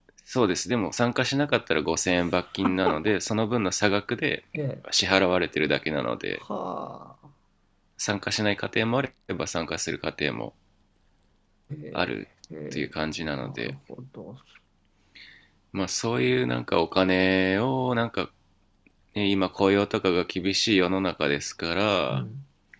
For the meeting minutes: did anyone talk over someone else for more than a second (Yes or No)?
No